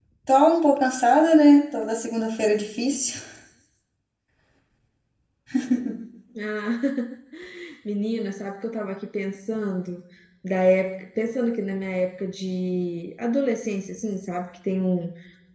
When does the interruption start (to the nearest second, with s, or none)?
none